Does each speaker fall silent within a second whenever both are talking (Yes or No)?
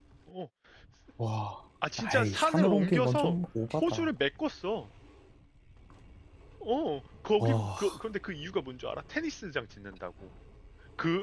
No